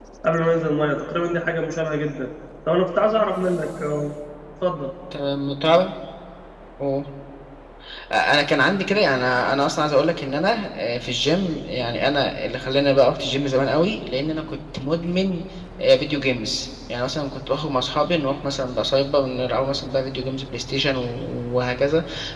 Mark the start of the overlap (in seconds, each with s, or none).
none